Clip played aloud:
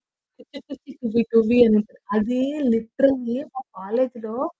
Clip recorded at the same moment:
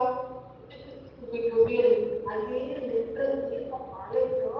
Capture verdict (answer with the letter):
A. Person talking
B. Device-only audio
B